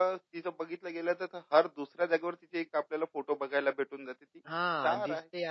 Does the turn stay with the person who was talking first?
No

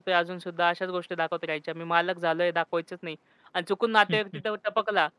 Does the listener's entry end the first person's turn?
No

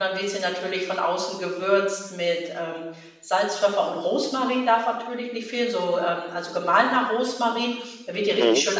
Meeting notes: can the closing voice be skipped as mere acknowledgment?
Yes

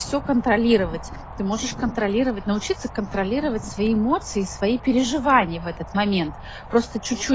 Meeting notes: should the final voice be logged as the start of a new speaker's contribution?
Yes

